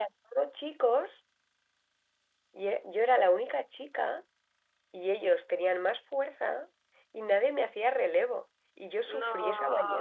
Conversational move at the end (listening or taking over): listening